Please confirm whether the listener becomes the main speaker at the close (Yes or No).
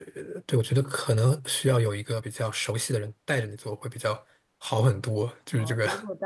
Yes